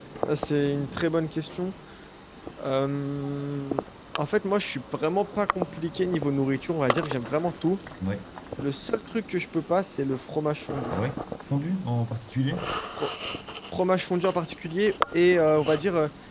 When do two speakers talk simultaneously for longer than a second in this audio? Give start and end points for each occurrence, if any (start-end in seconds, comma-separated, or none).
none